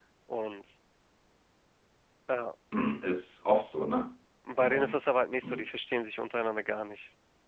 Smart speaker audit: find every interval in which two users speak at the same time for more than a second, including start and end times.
none

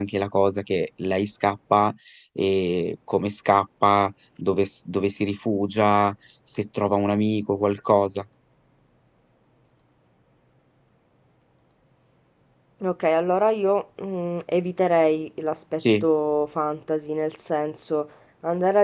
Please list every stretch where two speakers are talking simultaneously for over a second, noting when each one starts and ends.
none

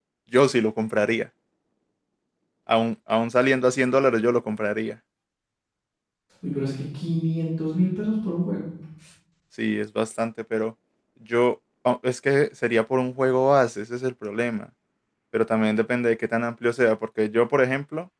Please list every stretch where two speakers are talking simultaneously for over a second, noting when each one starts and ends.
none

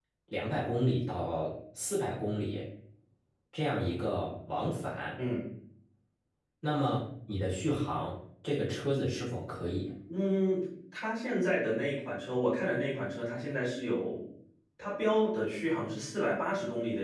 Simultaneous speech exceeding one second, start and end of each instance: none

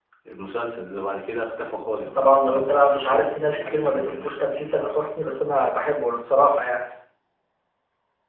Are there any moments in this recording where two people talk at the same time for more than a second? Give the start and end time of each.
2.2-4.3

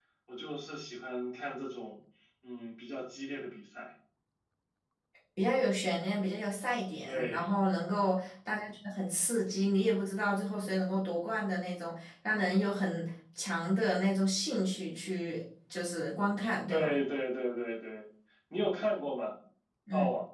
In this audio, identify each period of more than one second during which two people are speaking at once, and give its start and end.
none

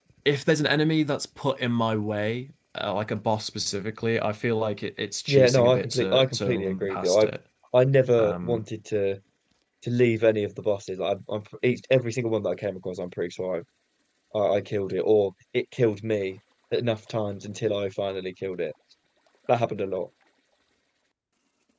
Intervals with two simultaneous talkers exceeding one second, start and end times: 5.3-7.3

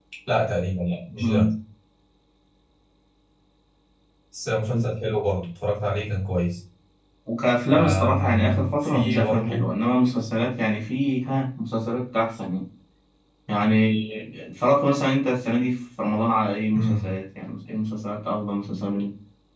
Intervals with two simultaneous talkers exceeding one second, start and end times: 7.6-9.6

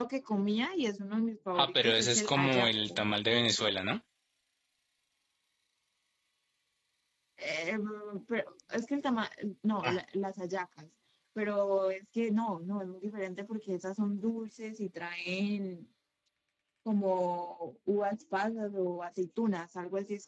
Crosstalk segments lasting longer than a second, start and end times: 1.6-3.0

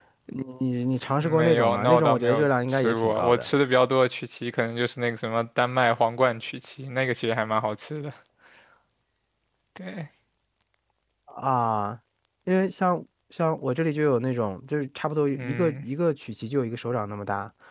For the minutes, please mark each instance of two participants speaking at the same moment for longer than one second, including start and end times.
1.2-3.5

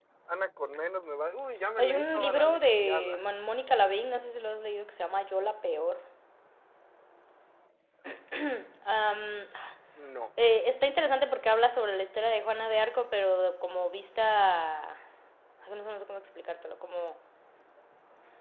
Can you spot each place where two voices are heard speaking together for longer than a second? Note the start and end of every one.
1.8-3.2

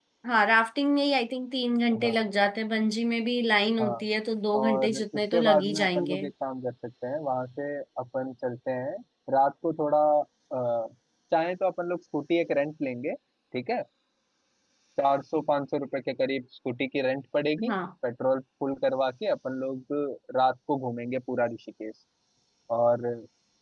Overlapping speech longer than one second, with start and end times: 4.6-6.2

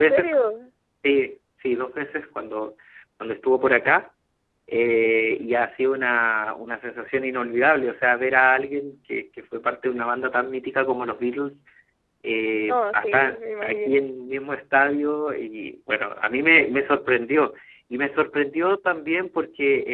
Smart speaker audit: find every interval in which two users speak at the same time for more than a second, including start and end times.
12.7-14.1

